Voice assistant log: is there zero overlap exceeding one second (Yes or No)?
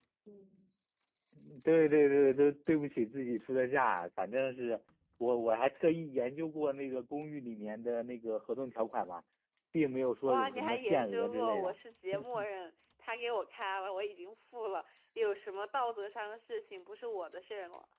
No